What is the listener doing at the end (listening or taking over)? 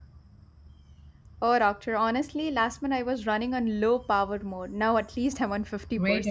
taking over